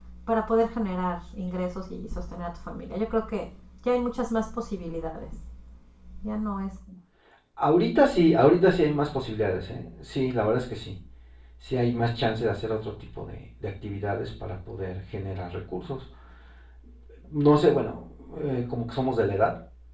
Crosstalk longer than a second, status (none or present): none